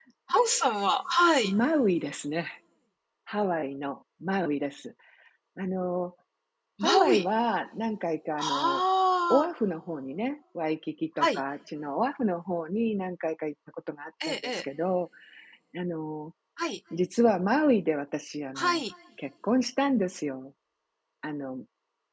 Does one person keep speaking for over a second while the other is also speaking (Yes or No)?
No